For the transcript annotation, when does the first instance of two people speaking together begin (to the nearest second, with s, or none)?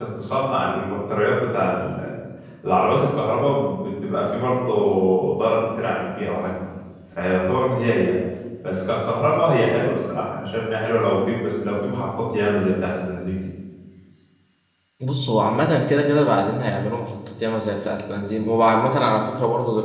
none